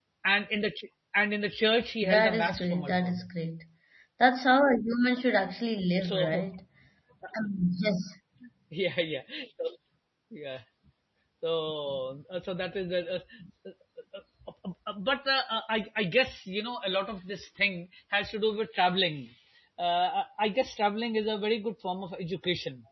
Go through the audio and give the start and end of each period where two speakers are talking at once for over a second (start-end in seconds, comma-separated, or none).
2.0-3.3